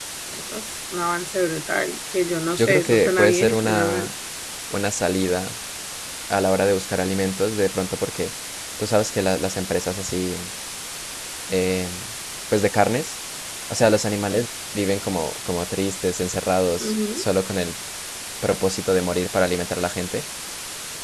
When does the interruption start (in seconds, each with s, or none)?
2.6 s